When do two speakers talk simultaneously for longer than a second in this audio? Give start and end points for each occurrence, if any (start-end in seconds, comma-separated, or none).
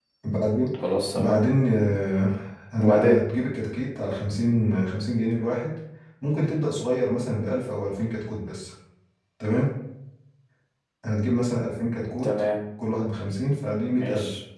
none